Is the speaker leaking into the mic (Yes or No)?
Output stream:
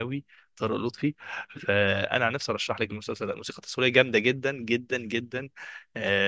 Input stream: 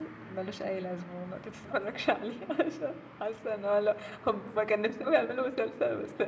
No